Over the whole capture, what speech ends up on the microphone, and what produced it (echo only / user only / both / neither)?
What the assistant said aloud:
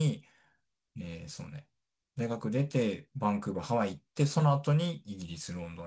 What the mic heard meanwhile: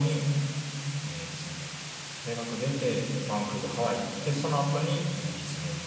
echo only